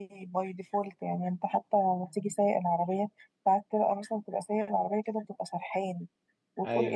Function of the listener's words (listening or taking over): listening